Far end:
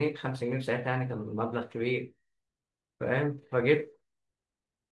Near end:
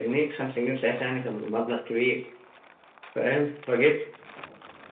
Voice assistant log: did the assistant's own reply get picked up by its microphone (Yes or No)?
Yes